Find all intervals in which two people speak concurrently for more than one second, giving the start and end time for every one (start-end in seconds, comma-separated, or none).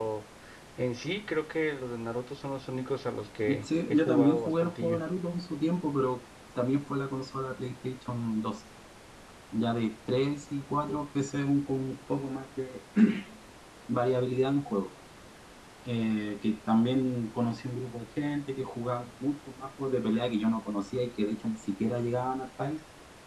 3.6-5.0